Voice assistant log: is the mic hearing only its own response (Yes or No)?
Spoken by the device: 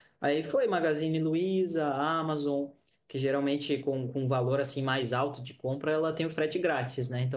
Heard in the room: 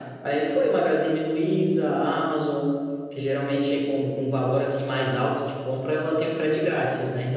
Yes